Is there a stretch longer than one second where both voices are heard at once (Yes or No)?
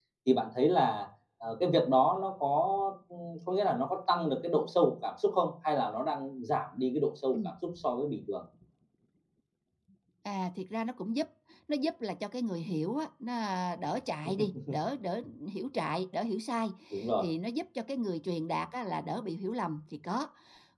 No